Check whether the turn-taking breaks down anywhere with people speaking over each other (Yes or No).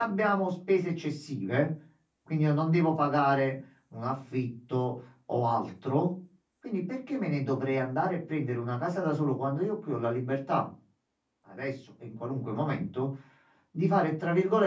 No